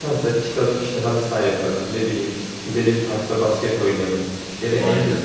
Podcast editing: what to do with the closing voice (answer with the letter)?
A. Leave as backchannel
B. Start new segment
A